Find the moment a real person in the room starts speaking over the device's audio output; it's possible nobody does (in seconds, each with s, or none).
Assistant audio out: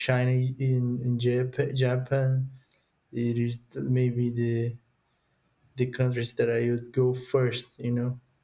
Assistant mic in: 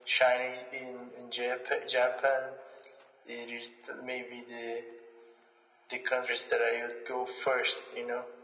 none